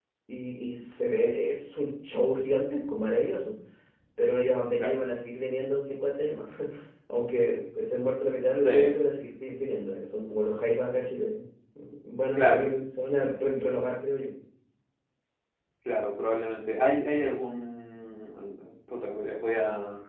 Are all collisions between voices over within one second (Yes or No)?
Yes